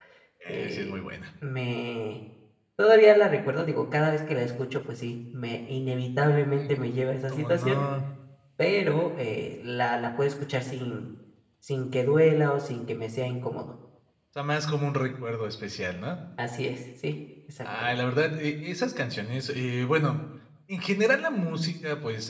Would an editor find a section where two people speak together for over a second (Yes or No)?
No